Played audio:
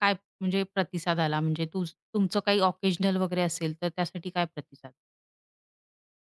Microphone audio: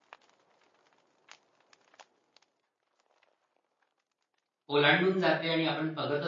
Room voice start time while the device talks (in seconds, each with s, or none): 4.7 s